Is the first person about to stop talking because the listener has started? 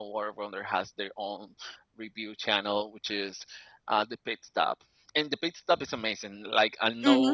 No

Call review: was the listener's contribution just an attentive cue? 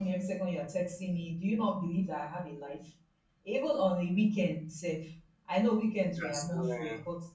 Yes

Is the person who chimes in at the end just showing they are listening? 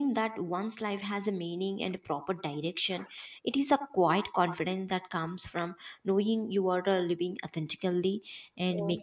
Yes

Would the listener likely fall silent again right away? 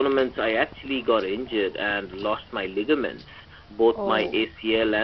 Yes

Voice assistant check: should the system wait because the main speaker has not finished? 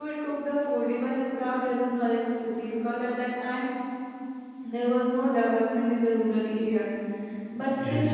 Yes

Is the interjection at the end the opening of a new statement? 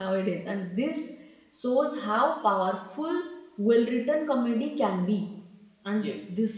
No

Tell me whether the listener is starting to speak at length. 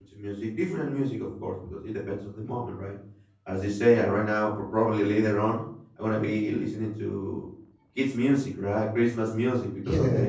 No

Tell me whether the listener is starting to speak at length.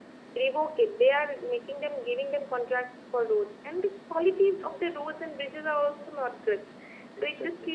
No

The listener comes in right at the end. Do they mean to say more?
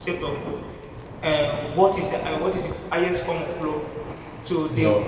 No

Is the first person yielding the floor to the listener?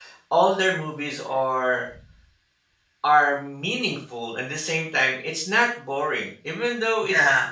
No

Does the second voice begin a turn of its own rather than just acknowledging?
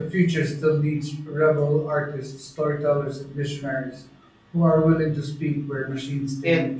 Yes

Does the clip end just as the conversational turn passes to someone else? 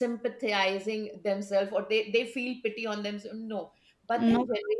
No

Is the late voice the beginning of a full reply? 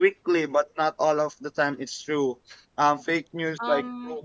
Yes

